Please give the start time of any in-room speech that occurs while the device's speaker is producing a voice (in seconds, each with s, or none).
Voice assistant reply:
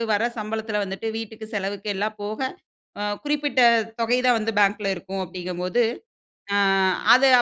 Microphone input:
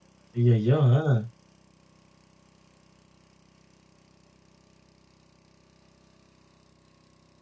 0.4 s